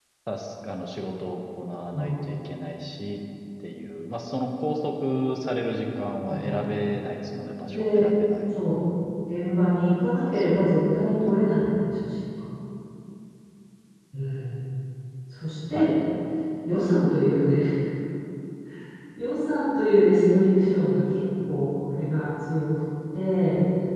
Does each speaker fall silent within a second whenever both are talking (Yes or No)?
Yes